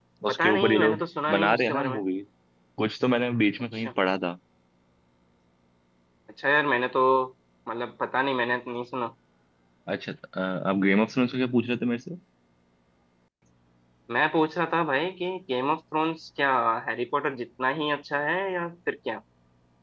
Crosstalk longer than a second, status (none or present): present